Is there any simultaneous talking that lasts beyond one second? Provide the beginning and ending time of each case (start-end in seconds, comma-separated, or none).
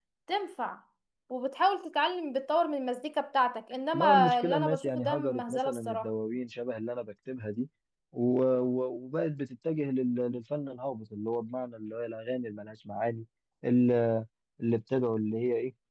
3.9-6.1